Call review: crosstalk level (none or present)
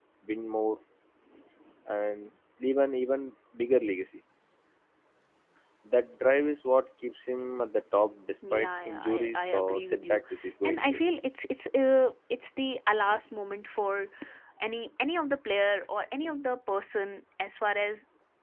present